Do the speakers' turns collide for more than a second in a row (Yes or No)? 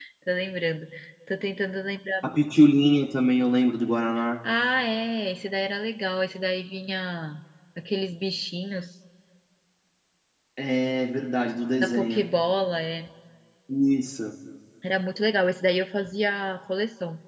No